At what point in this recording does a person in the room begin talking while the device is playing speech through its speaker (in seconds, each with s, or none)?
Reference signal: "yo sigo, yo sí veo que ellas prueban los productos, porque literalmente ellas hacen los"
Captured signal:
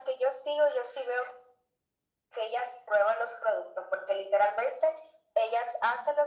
none